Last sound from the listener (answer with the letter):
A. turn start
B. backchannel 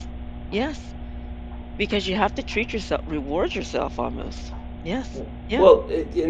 A